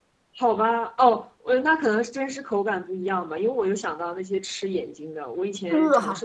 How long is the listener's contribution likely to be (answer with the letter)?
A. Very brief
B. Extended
A